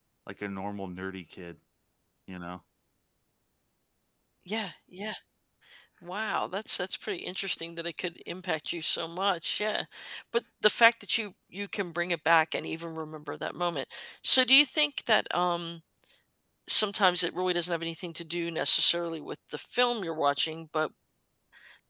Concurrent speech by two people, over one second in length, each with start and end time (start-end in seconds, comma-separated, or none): none